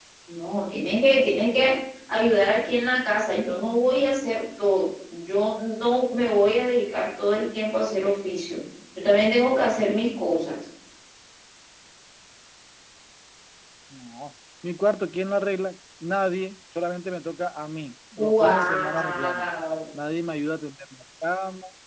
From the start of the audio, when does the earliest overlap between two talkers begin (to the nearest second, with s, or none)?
18 s